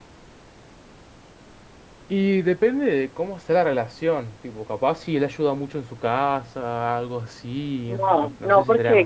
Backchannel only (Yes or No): No